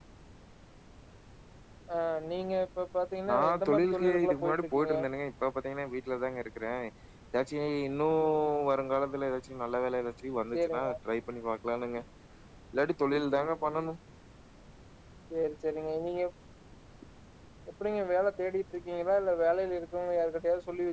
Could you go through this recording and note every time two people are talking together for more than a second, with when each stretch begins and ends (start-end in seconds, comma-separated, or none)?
3.3-4.9